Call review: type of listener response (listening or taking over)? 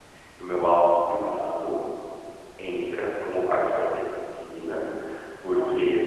listening